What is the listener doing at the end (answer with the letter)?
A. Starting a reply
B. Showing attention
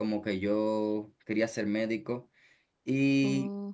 B